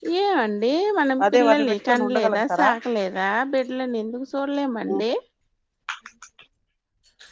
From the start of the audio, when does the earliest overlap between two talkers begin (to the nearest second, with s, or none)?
1 s